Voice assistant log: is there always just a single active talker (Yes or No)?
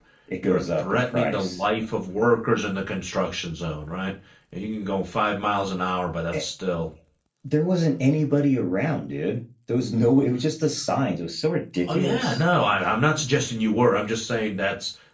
No